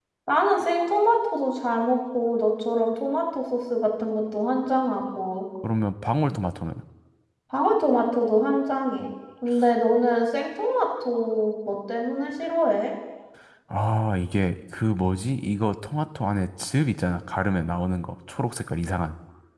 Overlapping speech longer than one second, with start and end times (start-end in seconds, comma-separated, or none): none